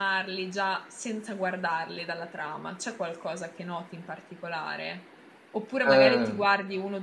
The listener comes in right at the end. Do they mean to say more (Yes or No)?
No